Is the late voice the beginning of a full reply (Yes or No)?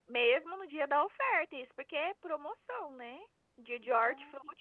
No